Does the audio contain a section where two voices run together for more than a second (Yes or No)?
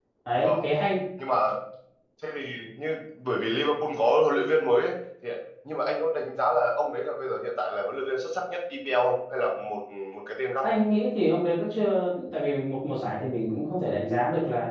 No